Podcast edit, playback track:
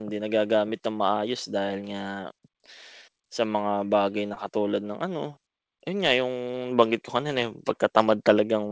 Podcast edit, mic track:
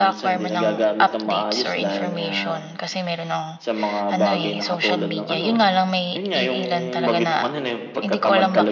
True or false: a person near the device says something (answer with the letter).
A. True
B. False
A